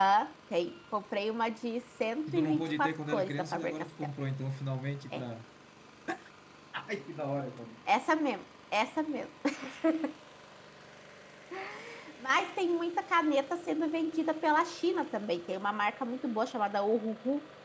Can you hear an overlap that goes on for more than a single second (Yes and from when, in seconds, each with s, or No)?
Yes, from 2.3 s